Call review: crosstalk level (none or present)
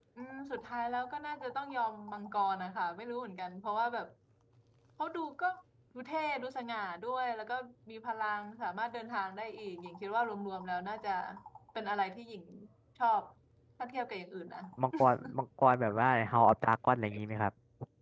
none